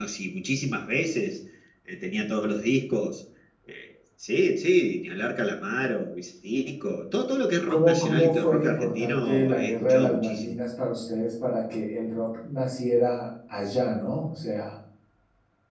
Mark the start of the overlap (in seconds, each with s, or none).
7.7 s